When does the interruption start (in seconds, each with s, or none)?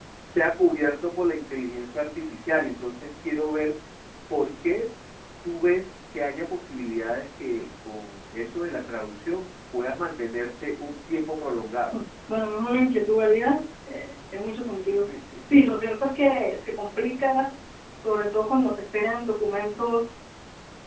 none